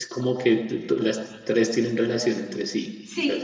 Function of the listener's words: taking over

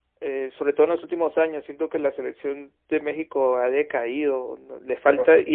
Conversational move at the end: listening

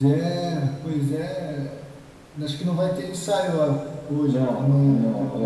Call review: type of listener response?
taking over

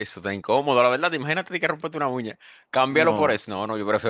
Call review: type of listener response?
listening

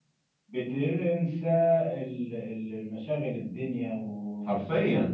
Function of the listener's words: listening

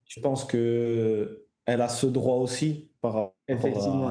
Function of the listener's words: taking over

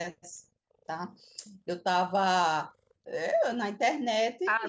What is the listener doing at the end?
taking over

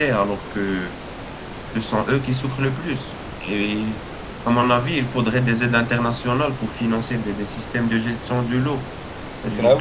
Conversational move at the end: listening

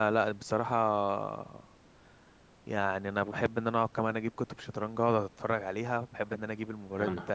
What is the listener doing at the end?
listening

